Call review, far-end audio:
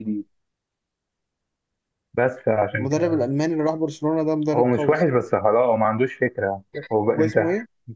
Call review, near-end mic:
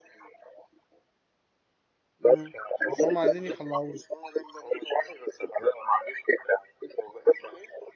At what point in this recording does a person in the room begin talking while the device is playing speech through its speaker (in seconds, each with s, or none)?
2.2 s